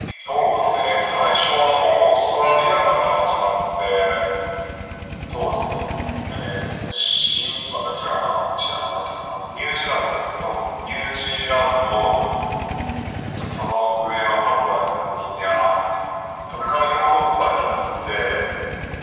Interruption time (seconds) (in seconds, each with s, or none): none